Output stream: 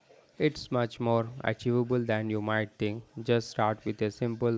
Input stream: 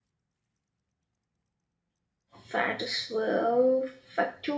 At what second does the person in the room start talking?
2.4 s

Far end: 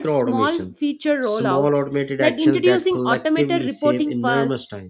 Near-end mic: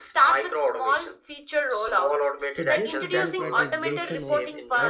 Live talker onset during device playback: 2.5 s

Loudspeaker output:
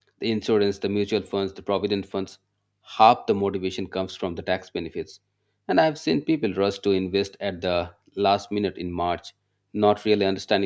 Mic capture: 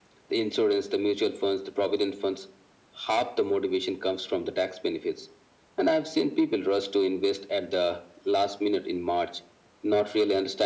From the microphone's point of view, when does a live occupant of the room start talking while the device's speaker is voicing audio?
none

